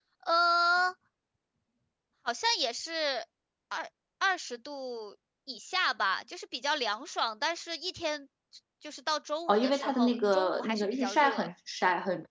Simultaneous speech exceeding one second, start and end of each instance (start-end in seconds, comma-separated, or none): 9.5-11.5